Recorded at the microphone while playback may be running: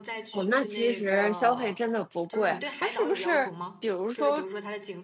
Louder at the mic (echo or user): user